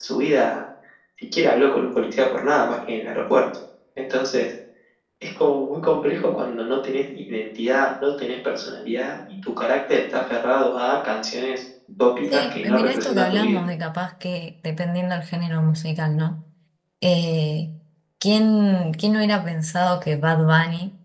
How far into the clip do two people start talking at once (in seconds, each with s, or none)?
12.3 s